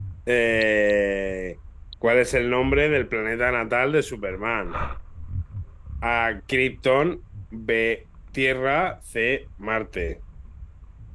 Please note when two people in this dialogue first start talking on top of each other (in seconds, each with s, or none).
none